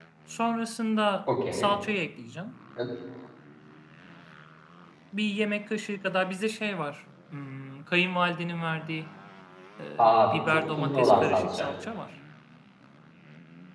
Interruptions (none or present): present